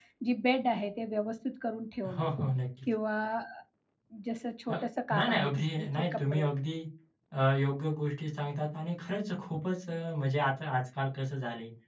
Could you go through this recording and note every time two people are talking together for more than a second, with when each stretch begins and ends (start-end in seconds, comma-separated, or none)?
5.1-6.5